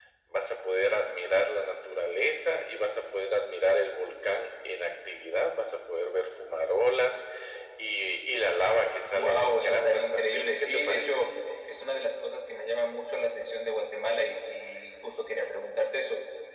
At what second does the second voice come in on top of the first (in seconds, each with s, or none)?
9.1 s